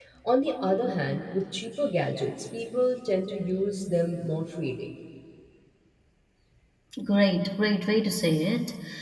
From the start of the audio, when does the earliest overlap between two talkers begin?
none

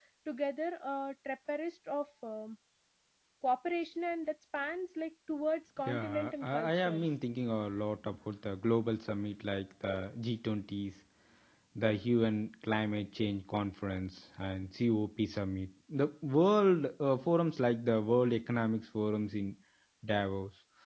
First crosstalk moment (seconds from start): 6 s

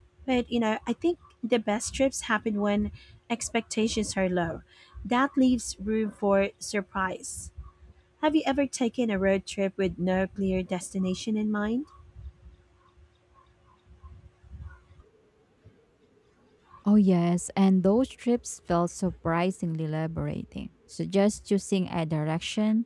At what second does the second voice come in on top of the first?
none

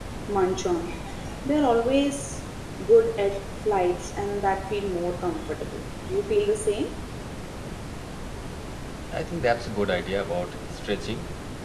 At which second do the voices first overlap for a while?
none

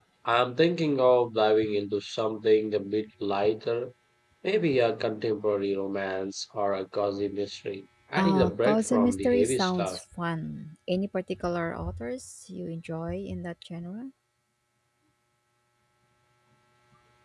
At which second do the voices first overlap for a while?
8 s

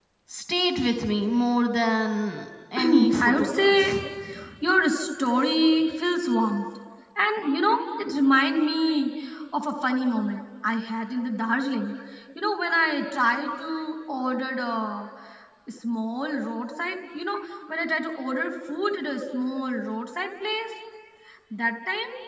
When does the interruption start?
3 s

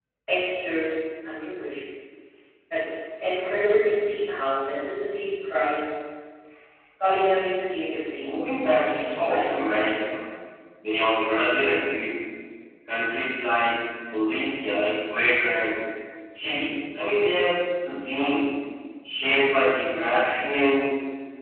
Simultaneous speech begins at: 8 s

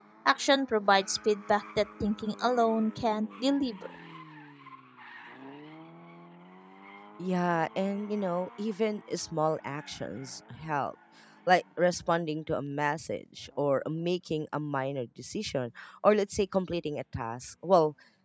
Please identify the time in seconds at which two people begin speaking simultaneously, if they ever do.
none

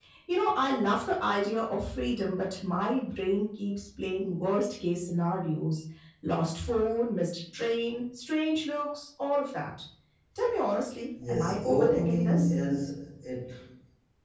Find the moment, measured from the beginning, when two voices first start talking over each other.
11 s

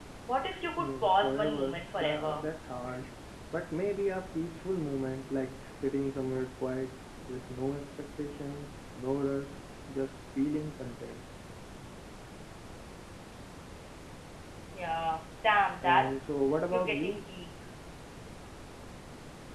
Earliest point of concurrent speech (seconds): 1 s

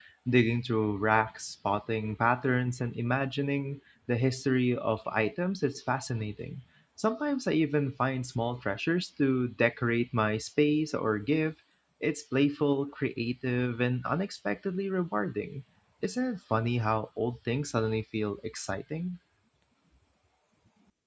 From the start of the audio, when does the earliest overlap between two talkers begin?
none

